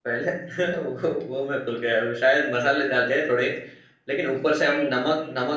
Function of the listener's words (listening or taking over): listening